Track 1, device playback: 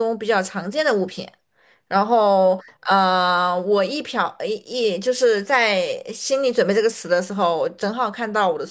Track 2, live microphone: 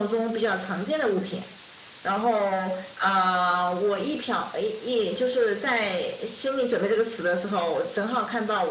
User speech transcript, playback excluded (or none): none